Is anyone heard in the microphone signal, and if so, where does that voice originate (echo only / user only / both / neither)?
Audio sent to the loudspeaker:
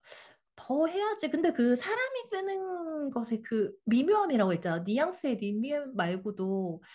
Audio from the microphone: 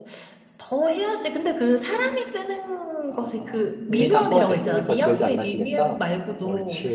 both